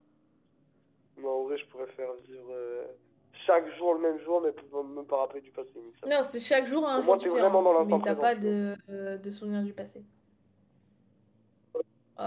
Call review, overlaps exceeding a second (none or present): present